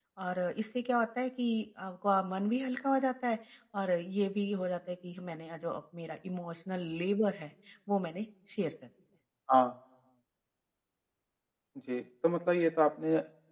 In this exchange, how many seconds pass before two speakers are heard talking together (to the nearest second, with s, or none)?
none